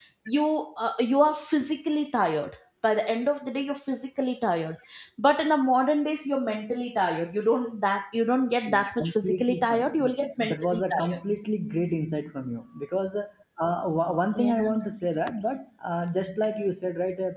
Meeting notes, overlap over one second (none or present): present